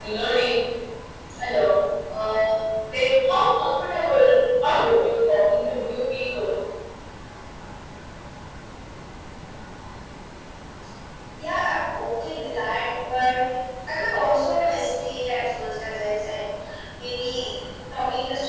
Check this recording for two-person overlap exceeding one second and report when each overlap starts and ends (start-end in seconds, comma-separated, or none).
none